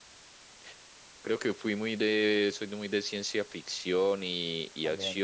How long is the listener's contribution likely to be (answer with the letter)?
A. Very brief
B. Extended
A